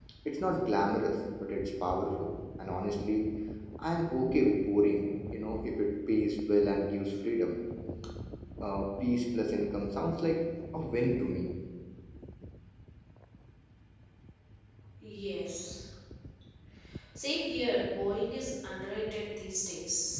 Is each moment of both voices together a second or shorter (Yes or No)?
Yes